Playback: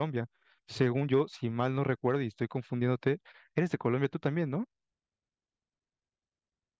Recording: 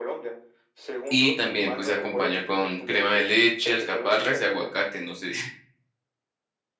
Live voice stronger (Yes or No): Yes